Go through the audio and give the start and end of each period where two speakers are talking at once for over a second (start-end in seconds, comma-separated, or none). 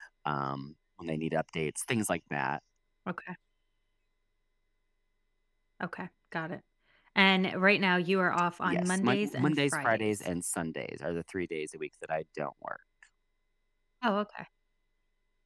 8.7-10.1